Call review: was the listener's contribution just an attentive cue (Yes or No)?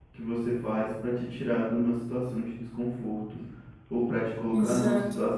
Yes